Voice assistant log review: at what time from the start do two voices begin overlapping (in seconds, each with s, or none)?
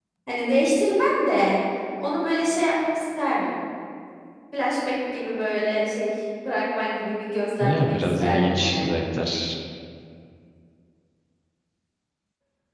7.6 s